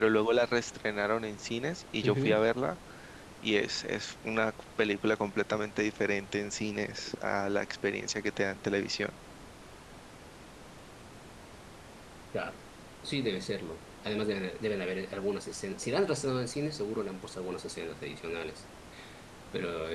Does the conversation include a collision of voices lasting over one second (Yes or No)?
No